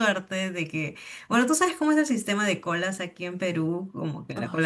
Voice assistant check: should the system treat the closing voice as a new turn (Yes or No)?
No